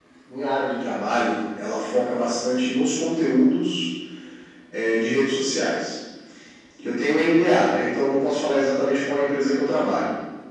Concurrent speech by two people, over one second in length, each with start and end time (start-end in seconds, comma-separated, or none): none